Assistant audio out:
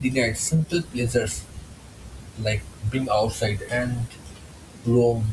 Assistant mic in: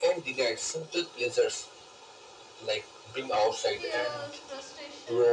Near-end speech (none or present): present